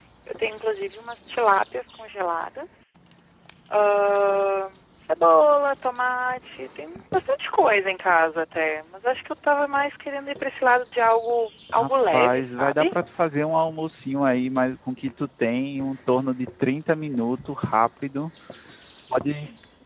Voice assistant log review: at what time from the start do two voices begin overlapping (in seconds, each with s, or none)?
11.8 s